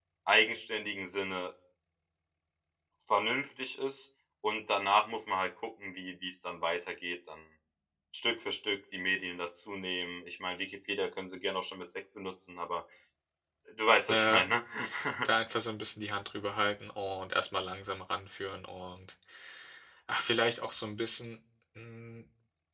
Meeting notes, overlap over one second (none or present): none